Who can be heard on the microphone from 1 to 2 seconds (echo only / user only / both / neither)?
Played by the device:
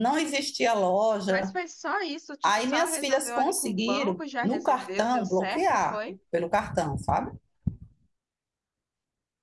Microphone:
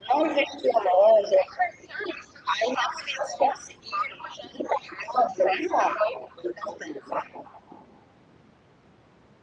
echo only